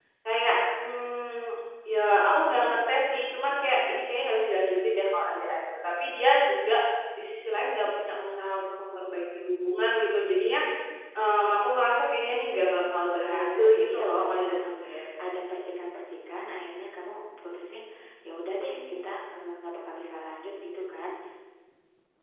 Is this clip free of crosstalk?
No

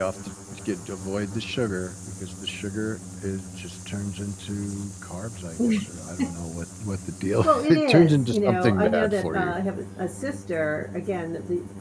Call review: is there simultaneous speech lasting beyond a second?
Yes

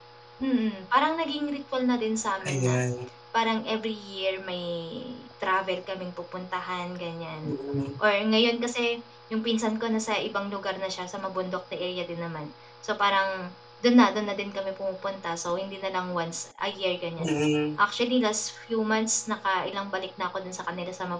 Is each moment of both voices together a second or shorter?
Yes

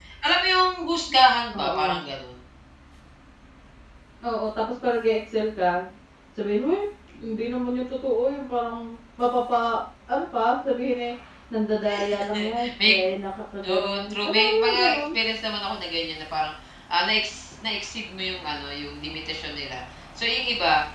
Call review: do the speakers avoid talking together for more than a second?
No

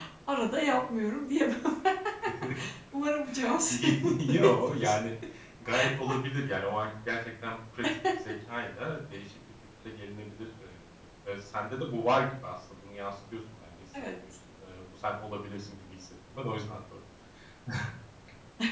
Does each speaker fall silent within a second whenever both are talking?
No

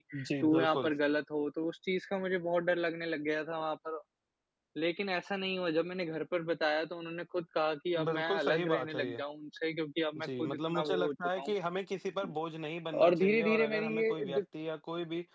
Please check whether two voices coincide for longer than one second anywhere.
Yes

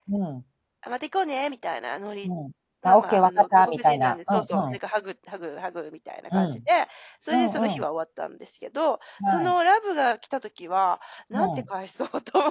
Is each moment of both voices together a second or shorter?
No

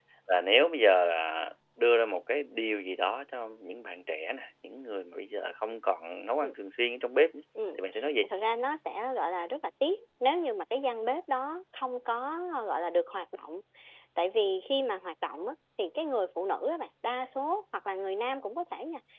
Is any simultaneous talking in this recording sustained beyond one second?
No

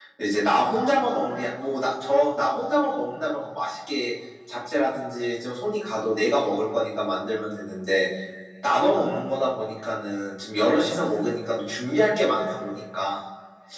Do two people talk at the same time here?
No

